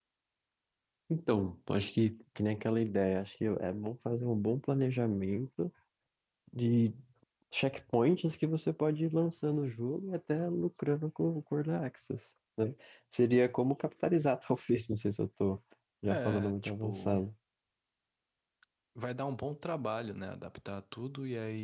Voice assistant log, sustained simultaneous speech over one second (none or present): present